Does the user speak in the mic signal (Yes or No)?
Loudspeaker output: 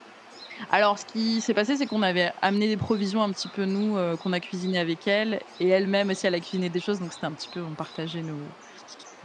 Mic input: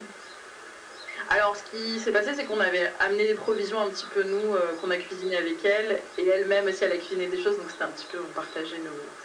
No